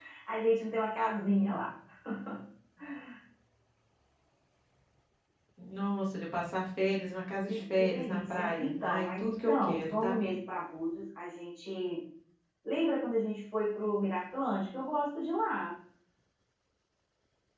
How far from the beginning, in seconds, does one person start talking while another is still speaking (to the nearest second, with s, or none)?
7 s